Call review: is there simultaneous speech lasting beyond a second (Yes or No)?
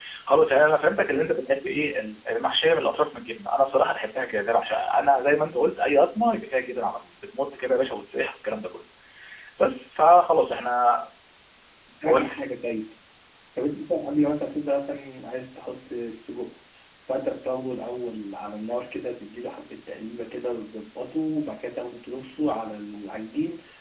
No